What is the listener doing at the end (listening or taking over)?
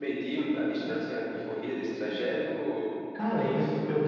taking over